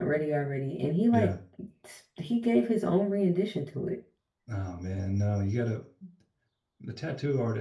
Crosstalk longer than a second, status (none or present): none